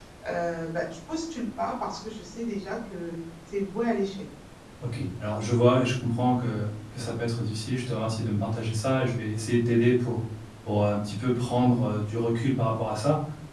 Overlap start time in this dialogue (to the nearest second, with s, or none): none